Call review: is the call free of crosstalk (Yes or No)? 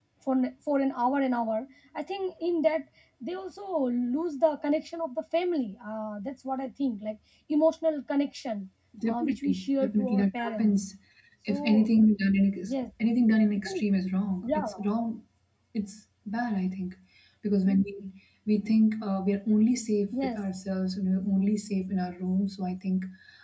No